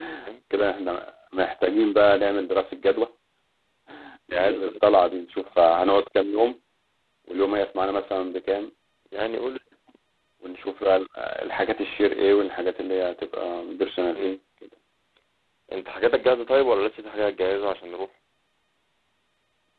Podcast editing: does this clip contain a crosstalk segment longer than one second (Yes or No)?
No